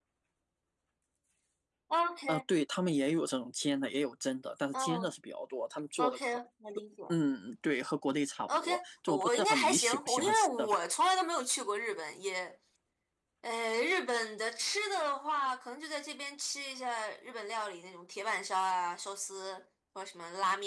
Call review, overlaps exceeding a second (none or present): present